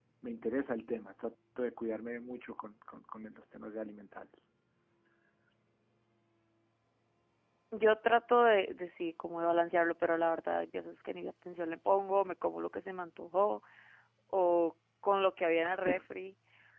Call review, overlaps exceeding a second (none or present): none